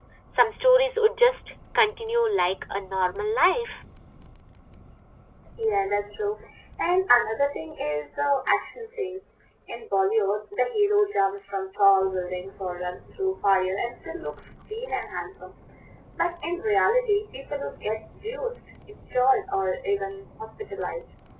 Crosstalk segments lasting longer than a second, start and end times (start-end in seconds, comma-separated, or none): none